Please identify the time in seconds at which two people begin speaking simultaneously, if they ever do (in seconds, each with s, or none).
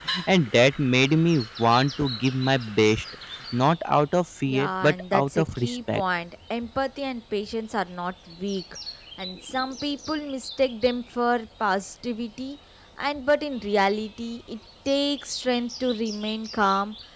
4.5 s